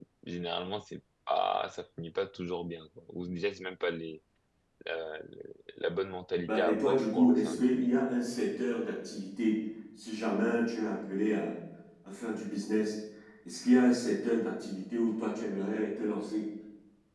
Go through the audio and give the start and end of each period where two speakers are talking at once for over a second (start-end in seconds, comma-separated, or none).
6.5-7.9